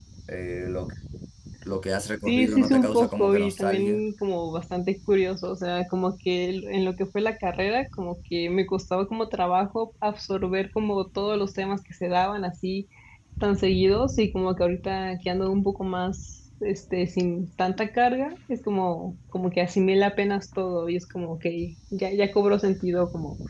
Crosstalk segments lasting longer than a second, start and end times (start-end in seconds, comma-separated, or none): 2.3-4.0